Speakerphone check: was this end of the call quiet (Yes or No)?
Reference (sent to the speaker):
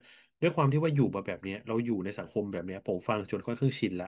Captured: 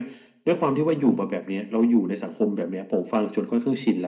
Yes